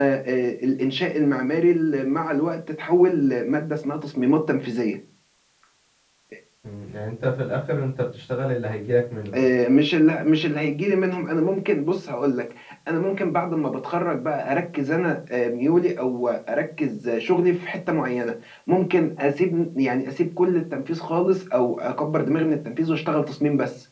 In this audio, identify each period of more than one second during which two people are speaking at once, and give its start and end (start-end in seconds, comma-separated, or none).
none